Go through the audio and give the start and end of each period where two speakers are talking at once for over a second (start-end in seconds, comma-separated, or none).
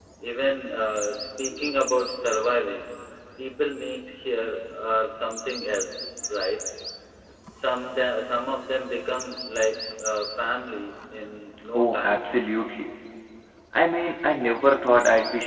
none